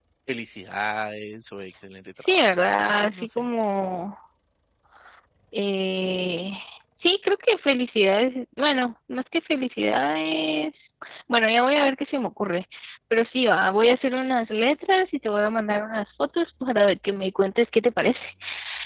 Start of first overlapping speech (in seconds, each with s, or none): 2.2 s